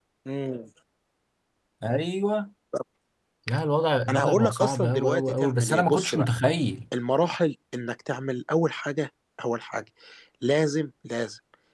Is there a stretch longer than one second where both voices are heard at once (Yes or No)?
Yes